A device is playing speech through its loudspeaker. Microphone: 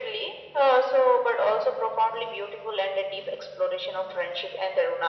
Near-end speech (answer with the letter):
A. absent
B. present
A